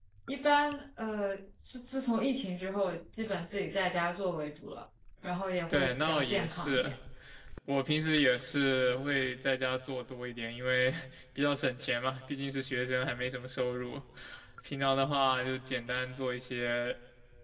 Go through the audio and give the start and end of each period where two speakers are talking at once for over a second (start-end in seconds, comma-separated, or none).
5.7-6.9